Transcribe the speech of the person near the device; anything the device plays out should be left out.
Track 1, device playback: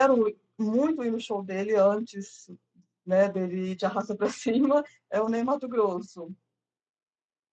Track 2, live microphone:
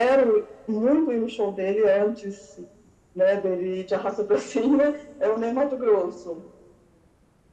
none

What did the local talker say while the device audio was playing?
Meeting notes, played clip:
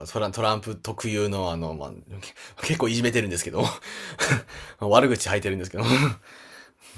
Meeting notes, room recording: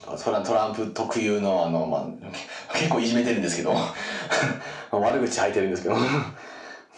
none

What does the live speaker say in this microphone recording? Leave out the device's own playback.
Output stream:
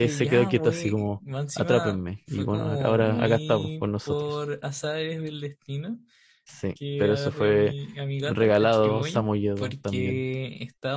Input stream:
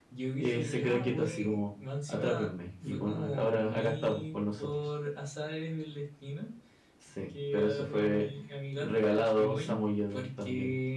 none

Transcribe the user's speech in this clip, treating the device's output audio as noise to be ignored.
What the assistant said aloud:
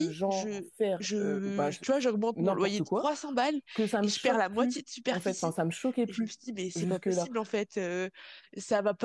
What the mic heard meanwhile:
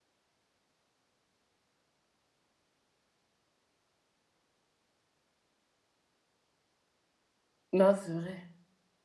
non, c'est vrai.

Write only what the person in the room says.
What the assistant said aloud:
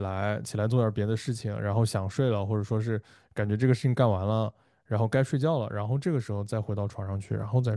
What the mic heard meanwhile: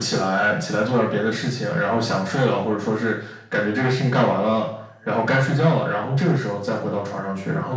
none

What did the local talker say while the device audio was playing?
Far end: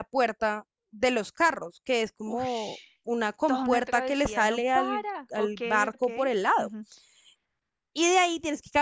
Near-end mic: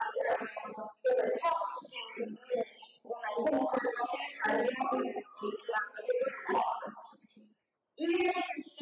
none

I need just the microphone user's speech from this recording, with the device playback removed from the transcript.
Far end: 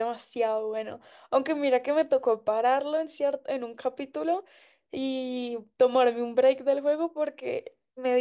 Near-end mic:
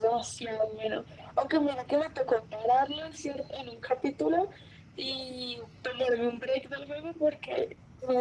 none

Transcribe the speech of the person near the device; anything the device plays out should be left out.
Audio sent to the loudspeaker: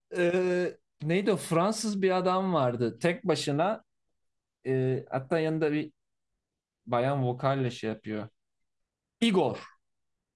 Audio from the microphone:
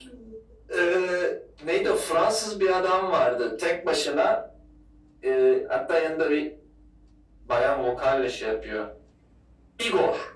none

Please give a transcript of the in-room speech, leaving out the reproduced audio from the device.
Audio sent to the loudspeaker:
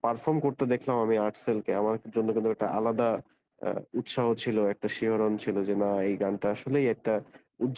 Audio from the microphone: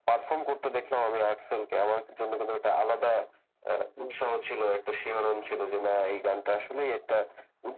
হুম হুম

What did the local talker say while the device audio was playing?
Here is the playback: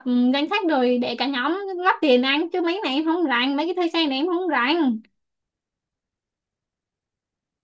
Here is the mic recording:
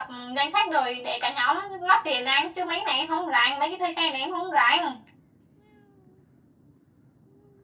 none

